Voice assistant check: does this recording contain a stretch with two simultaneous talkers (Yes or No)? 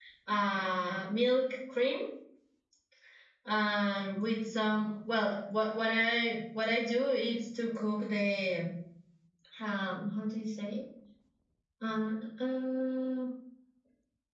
No